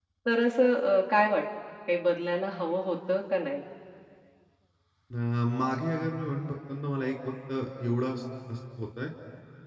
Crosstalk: none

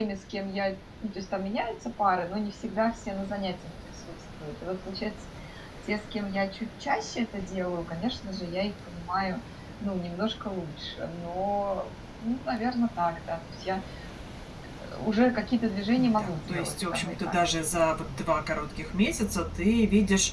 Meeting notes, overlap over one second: present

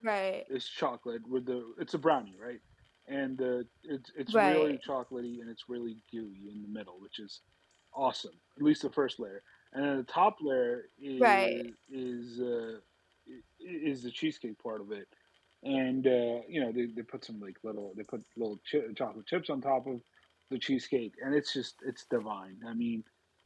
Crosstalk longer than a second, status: none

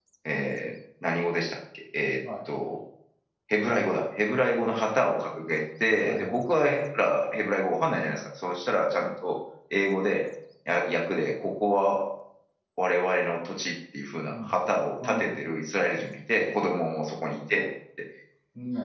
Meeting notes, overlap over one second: none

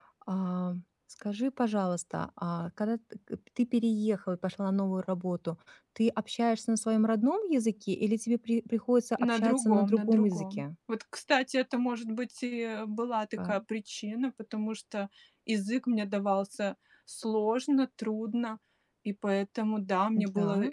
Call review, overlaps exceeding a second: present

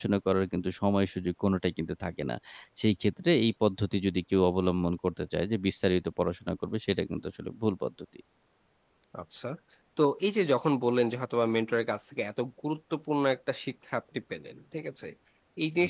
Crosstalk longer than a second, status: none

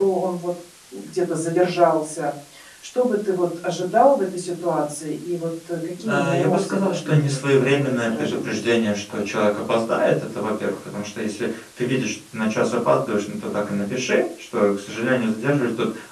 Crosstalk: present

